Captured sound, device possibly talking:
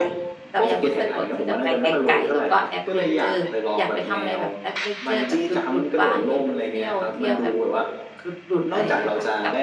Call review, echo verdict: present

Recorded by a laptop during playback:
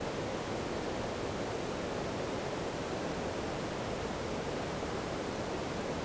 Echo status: none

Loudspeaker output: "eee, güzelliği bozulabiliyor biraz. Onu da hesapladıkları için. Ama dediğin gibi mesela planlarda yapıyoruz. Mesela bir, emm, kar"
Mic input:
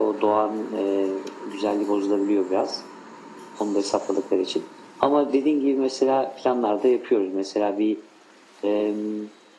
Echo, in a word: present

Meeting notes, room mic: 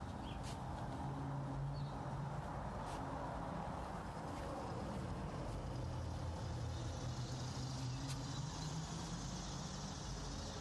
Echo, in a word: none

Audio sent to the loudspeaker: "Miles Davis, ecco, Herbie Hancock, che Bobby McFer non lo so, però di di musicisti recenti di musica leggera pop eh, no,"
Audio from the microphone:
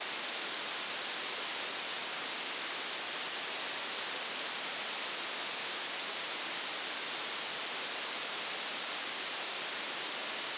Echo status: none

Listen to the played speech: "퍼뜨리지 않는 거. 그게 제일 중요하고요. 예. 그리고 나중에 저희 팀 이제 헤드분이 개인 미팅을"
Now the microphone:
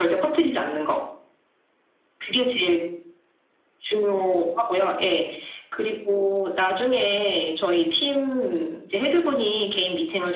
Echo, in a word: present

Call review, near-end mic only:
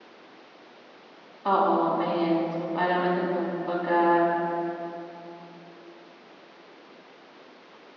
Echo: none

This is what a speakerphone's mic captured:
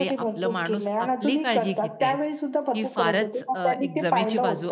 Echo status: present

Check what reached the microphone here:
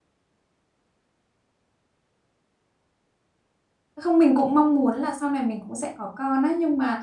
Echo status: none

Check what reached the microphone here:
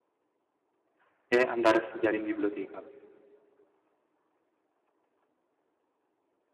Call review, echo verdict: none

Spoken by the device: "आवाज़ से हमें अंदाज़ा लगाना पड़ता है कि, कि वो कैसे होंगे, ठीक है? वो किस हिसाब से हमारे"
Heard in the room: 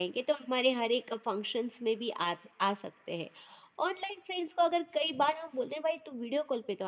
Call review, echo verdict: none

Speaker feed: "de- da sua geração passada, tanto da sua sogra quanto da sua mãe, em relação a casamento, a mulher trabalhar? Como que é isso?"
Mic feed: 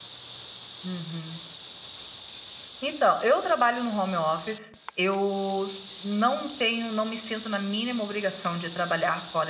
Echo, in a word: none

